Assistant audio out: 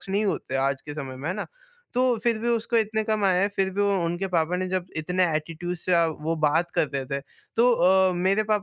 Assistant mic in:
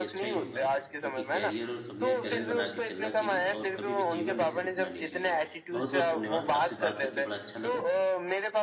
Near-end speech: present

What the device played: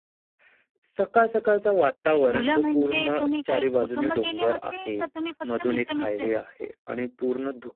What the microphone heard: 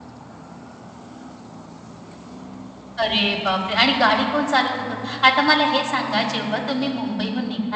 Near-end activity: present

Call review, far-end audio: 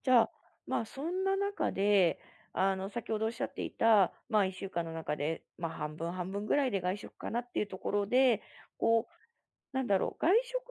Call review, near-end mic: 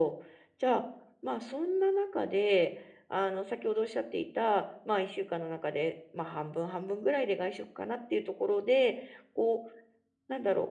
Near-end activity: none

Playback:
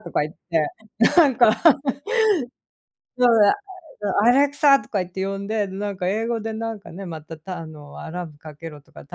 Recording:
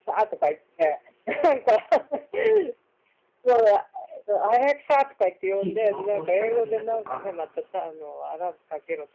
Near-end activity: present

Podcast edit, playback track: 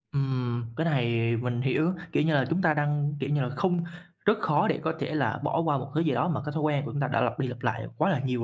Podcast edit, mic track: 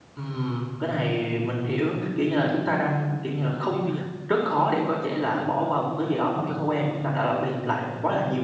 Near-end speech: present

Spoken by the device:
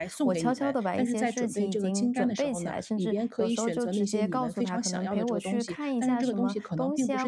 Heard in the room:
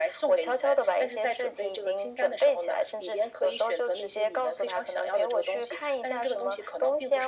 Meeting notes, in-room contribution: none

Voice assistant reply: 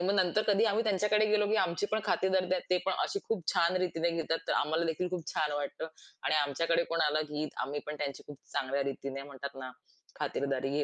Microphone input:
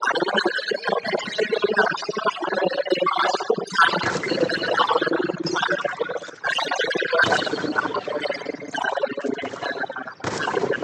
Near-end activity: none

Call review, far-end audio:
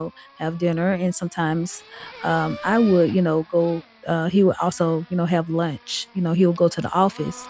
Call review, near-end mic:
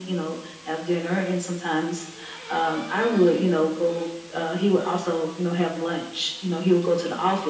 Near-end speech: none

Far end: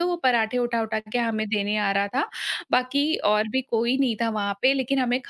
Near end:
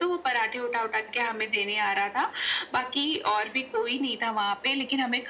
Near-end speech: none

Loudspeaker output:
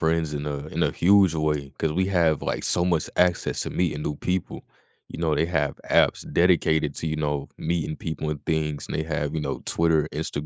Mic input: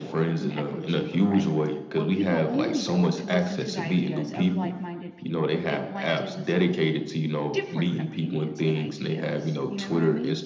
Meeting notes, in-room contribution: present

